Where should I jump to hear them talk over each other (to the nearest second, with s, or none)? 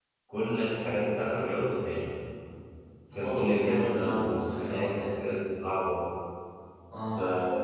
3 s